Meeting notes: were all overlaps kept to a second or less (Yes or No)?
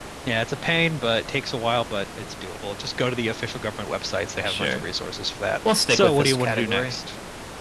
No